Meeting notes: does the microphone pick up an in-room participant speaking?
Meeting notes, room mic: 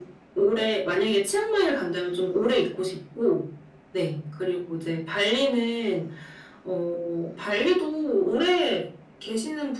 No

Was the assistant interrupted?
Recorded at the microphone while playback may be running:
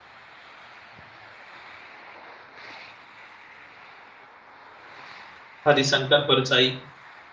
Yes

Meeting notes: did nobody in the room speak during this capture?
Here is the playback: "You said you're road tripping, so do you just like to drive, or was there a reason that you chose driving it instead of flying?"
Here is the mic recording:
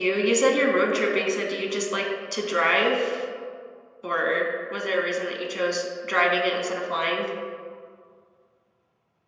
Yes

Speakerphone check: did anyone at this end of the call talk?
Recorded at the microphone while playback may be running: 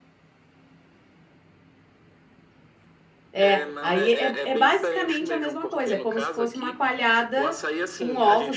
Yes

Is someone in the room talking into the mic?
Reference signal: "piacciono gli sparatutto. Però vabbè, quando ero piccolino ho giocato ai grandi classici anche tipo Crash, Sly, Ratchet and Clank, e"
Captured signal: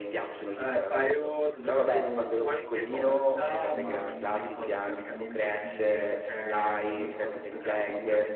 Yes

